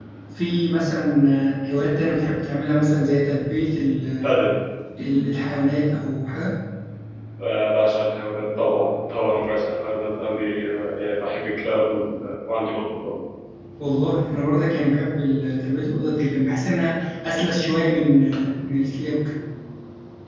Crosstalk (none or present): none